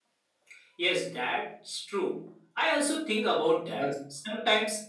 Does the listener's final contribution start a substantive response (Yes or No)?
No